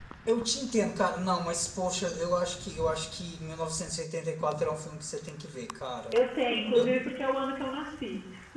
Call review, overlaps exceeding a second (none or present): none